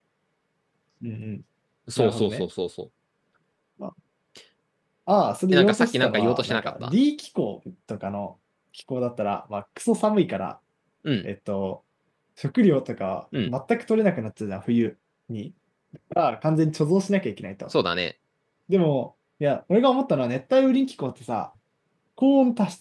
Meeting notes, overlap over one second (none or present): present